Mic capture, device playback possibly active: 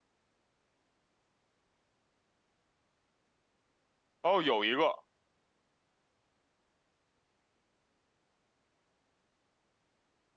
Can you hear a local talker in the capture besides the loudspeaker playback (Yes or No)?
Yes